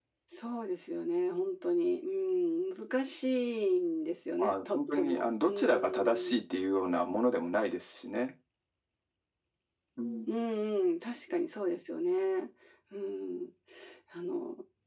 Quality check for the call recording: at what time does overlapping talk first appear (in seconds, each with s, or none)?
4.4 s